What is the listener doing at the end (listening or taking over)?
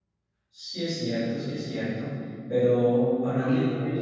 taking over